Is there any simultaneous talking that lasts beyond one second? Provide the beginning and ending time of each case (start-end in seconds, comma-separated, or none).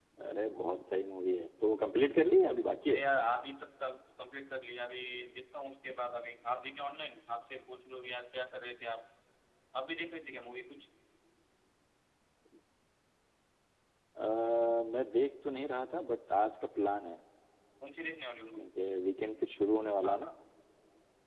none